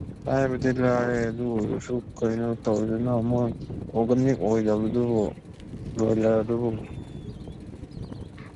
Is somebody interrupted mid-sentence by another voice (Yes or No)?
No